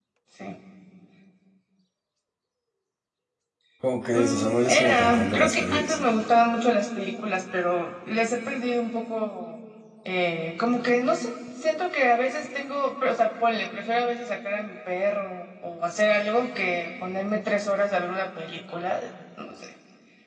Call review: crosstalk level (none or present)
present